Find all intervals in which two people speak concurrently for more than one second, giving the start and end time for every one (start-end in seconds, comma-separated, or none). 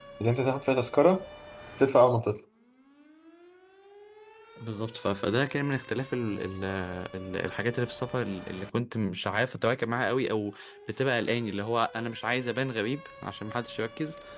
none